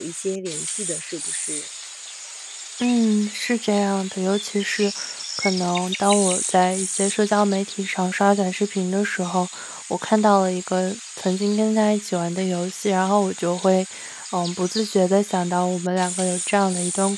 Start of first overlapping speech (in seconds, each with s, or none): none